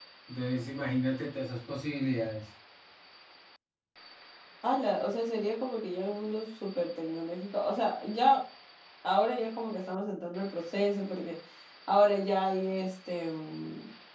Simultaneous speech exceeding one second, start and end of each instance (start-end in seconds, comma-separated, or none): none